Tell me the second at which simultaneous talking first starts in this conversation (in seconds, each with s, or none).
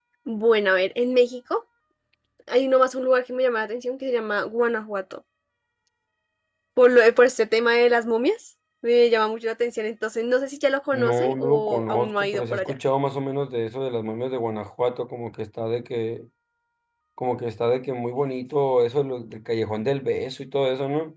10.9 s